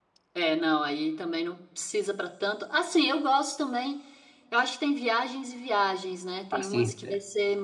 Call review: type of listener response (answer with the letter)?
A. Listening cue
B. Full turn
A